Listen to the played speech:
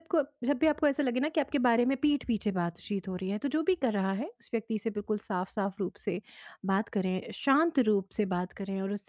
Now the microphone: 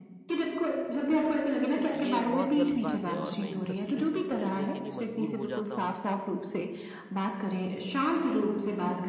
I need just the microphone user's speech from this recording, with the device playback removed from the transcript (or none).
तो ये बहुत गलत बात है और मैं इन सब चीज़ों को सोचने के लिए मजबूर हो जाता हूँ